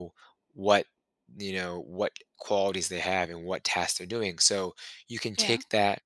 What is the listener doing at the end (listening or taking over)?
listening